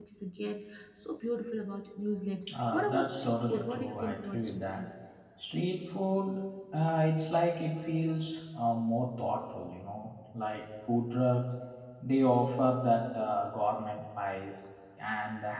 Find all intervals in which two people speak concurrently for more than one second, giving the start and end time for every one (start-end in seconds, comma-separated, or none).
2.7-4.8